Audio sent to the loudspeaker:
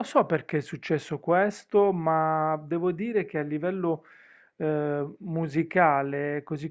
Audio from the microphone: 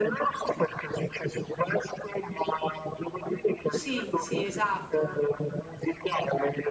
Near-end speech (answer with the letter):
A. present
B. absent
A